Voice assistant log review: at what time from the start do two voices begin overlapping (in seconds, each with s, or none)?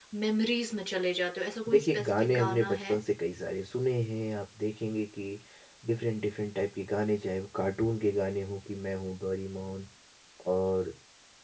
1.7 s